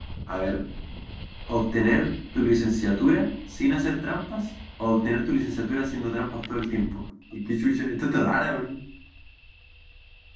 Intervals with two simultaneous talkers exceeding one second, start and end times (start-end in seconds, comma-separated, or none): none